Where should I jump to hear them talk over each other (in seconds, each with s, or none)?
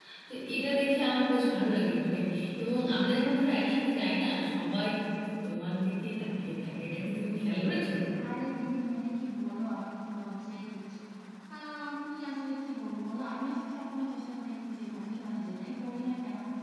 none